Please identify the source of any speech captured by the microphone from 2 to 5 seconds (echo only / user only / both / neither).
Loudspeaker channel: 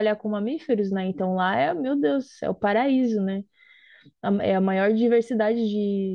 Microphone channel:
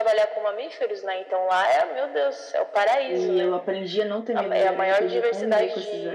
both